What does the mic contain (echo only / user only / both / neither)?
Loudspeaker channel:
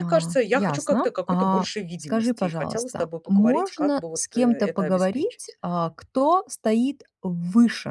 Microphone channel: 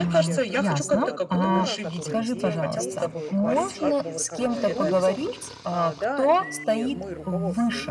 both